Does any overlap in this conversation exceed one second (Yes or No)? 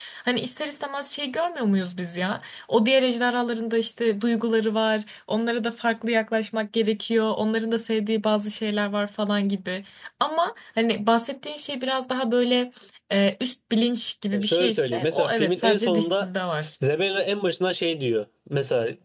Yes